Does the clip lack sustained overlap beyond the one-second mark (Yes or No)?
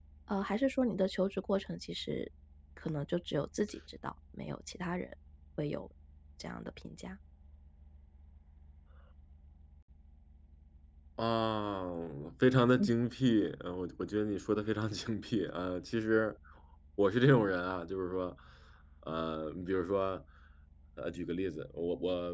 Yes